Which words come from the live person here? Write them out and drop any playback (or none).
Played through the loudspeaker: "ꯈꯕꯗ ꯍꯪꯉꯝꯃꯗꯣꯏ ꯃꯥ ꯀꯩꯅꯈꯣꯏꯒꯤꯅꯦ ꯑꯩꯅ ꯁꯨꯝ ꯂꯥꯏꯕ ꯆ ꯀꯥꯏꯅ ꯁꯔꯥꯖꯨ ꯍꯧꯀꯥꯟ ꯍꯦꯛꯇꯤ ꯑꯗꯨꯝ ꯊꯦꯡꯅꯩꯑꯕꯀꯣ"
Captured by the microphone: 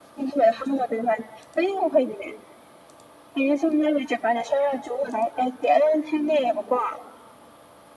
none